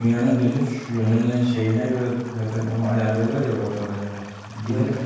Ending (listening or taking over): listening